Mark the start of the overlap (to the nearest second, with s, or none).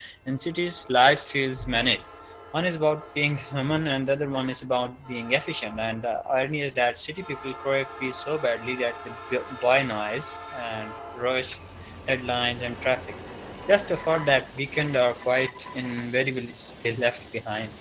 none